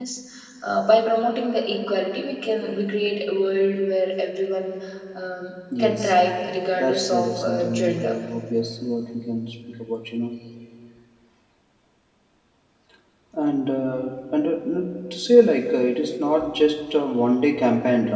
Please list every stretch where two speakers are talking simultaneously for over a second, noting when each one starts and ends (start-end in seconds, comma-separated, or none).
6.8-8.1